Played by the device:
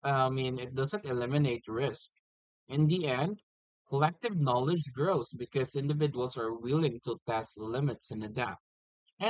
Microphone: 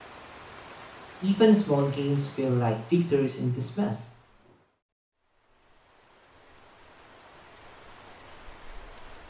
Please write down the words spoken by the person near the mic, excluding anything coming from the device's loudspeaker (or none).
Even small gains feel like victories in this mess.